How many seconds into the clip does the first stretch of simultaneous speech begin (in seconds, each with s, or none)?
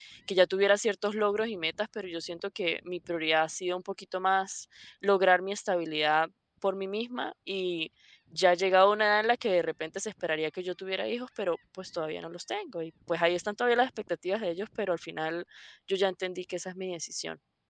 none